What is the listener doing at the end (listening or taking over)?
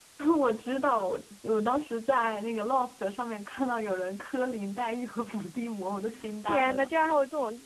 taking over